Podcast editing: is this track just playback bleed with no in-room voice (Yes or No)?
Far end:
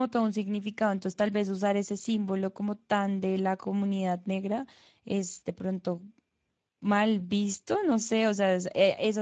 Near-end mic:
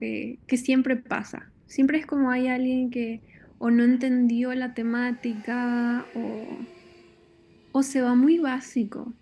No